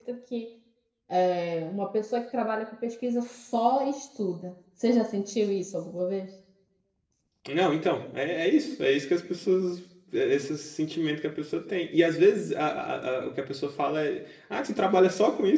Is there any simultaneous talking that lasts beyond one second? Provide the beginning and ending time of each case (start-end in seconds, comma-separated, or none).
none